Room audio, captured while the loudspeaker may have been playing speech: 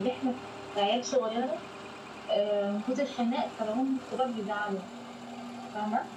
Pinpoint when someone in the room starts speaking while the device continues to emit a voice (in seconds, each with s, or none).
none